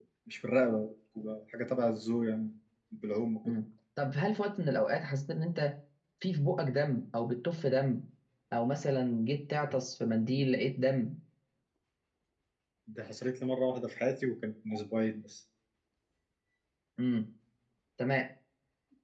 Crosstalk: none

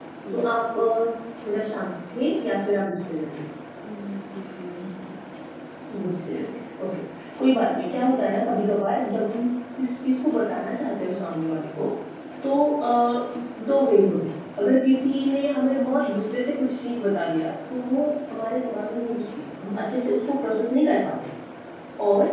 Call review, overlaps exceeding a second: none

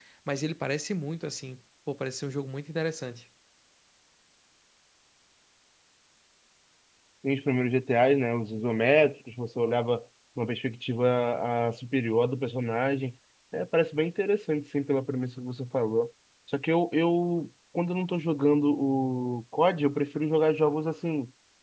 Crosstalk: none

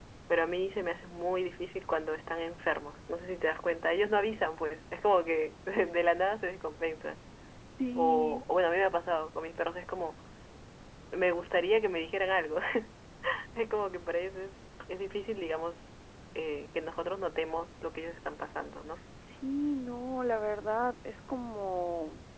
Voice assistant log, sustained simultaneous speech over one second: none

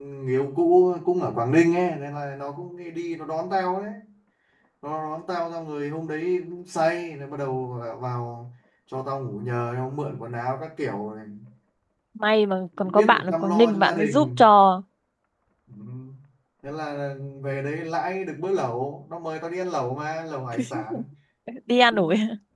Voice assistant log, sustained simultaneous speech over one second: present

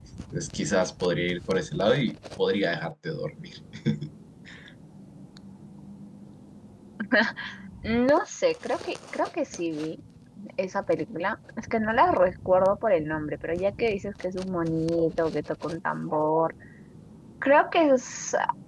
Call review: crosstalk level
none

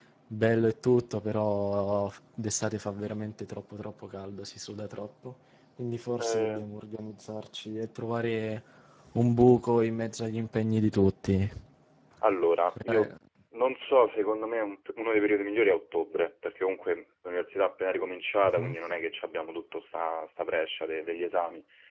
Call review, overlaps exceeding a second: none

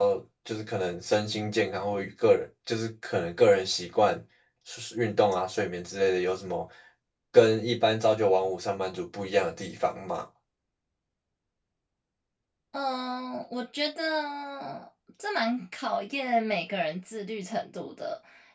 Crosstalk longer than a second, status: none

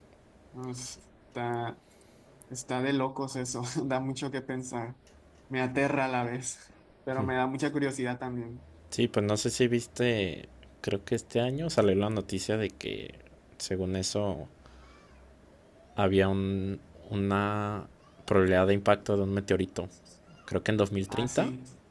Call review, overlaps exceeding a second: none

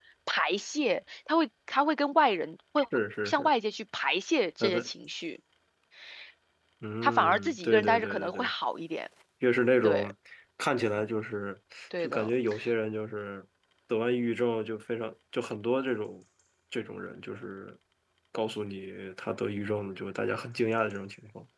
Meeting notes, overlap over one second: present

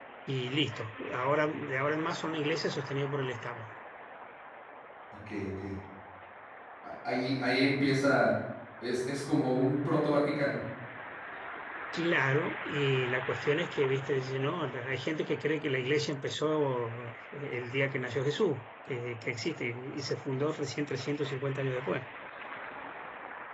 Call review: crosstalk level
none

